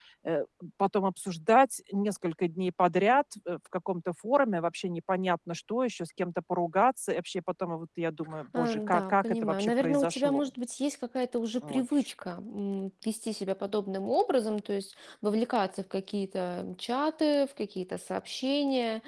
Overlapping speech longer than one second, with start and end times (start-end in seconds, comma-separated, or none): 8.6-10.4